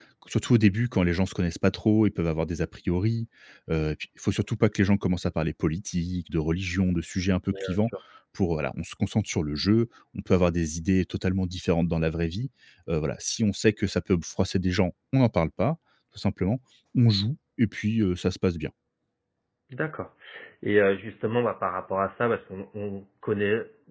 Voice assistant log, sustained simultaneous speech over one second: none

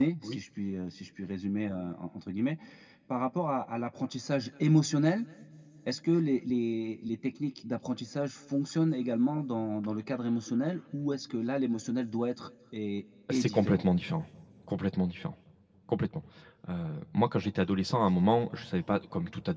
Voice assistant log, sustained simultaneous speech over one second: none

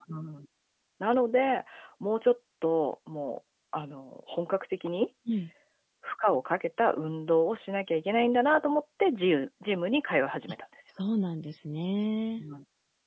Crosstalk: none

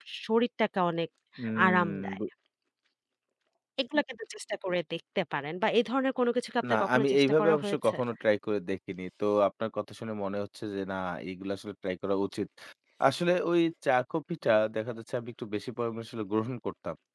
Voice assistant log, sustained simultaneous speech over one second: present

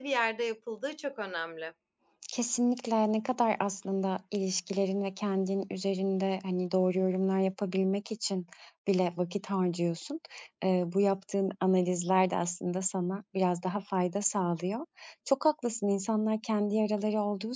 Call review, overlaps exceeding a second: none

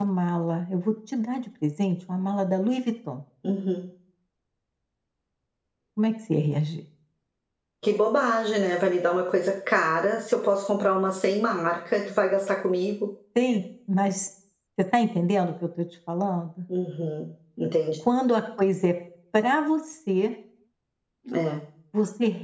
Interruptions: none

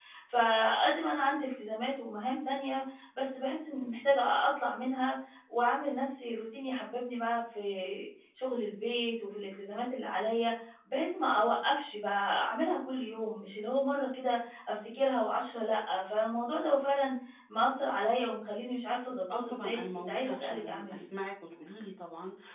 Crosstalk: present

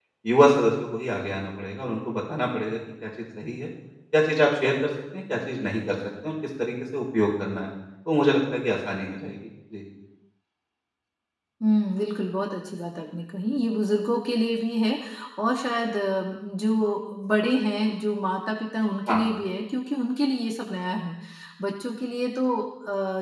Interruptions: none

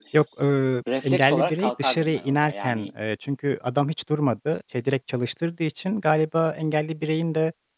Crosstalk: present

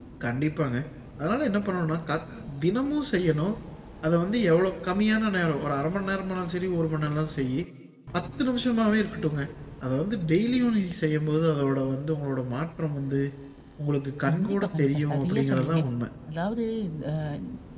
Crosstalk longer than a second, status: present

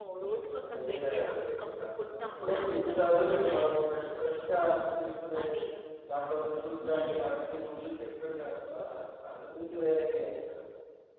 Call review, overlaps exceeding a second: present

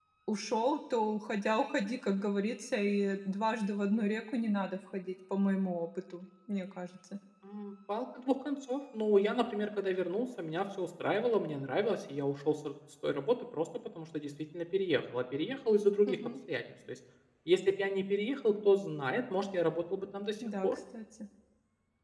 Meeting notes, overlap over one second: none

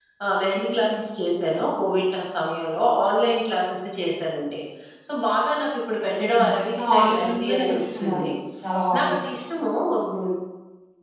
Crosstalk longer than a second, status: present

